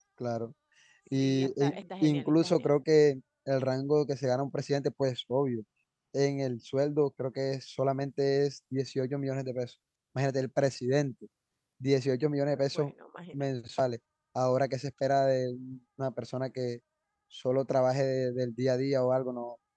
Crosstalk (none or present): present